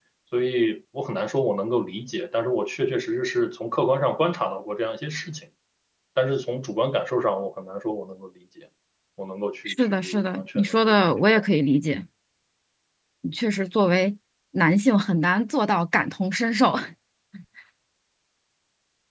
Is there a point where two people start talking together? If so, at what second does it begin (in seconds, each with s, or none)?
9.7 s